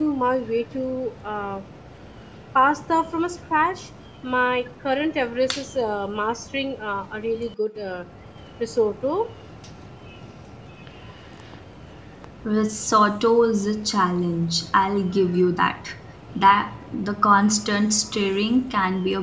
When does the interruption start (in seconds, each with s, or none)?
none